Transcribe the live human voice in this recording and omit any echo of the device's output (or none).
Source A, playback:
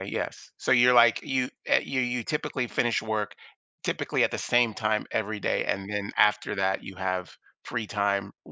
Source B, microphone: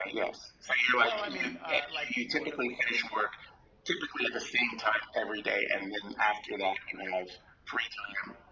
Well, I mean, uh, like, do you work on the weekends?